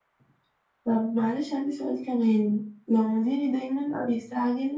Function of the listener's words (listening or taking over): listening